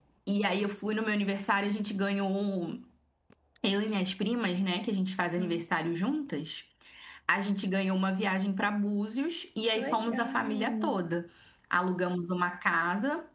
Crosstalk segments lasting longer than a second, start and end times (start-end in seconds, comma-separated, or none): 9.8-11.0